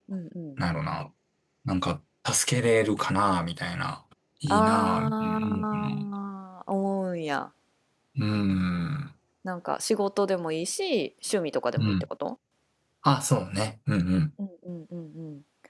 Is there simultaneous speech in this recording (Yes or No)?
Yes